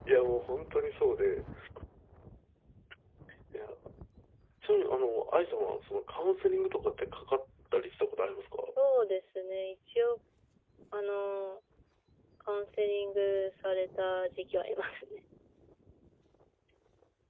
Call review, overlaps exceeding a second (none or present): none